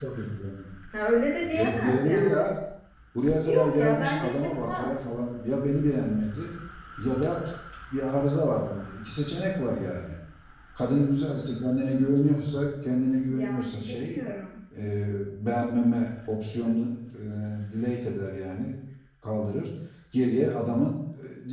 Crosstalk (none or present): present